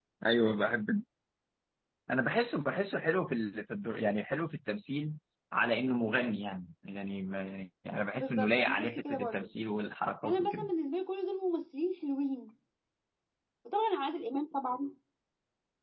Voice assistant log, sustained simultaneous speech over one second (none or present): present